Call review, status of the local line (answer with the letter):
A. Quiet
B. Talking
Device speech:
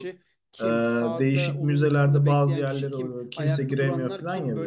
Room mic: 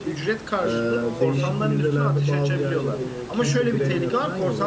B